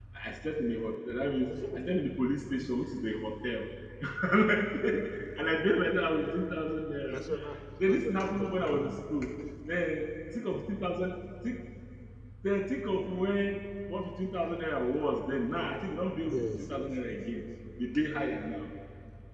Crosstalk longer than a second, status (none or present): present